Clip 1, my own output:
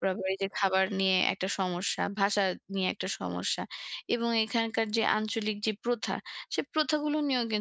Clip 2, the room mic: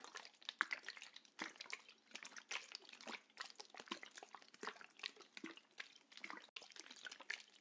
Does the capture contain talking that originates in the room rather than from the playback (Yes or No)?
No